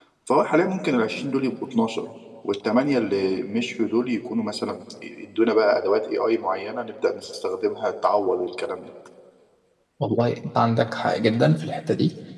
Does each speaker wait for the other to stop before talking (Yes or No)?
Yes